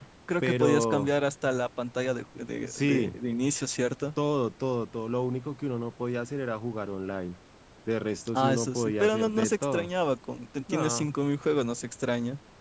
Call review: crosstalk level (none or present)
present